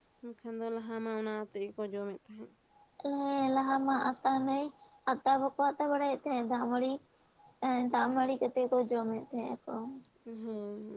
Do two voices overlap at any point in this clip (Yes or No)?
No